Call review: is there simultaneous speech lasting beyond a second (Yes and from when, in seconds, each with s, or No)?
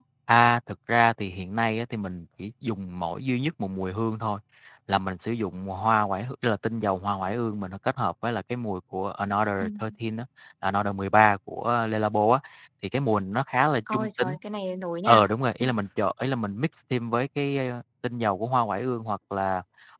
No